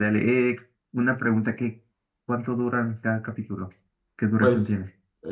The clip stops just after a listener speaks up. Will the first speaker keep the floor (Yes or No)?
No